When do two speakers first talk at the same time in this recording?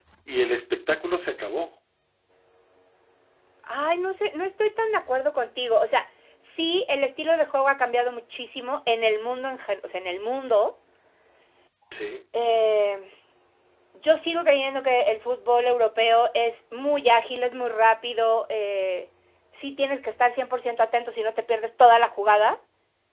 none

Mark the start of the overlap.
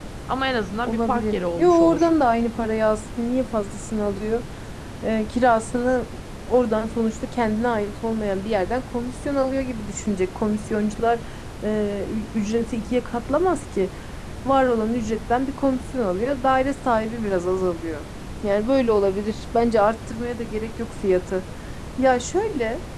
0.8 s

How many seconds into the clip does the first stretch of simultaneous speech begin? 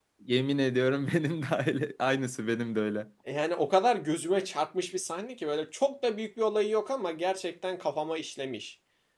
none

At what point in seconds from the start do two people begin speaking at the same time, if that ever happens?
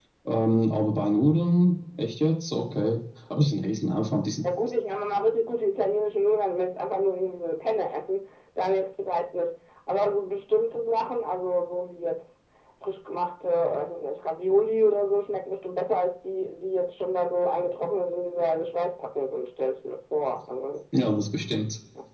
none

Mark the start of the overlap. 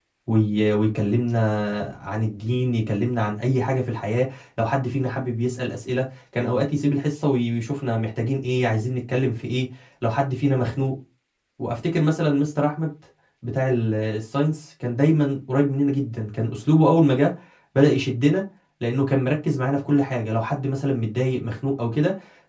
none

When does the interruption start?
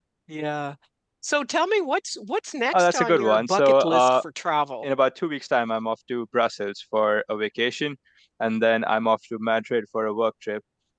2.7 s

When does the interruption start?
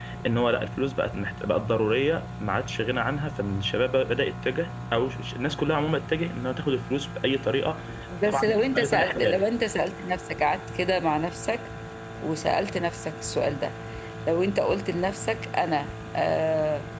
8.2 s

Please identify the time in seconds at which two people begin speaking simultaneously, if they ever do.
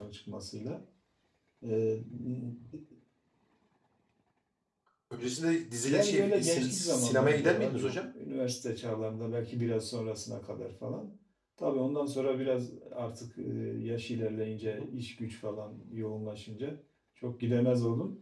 5.9 s

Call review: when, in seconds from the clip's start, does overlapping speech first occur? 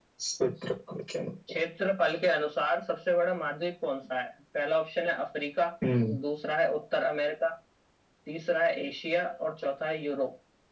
none

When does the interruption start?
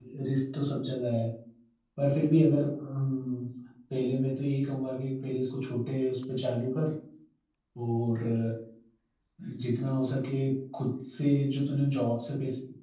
none

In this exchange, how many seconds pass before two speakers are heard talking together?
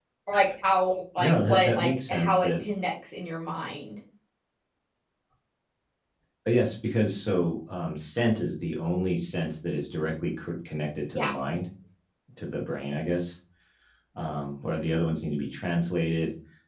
1.2 s

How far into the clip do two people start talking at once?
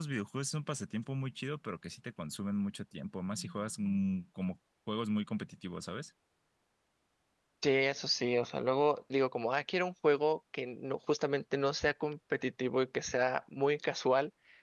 none

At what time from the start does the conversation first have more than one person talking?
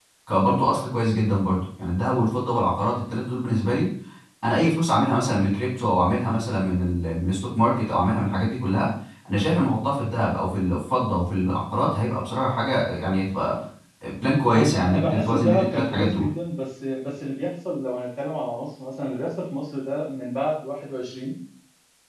14.6 s

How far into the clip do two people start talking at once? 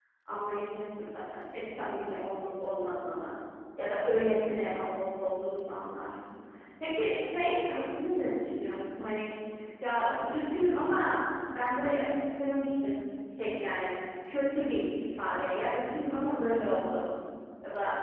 none

